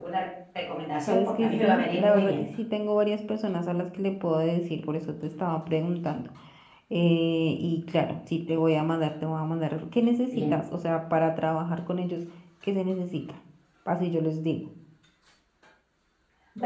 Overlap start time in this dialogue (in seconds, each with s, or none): 1.1 s